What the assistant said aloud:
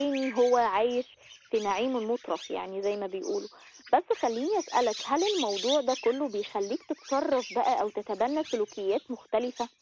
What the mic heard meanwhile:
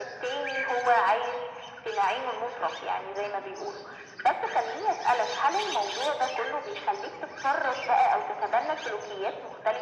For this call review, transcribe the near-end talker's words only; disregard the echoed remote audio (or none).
none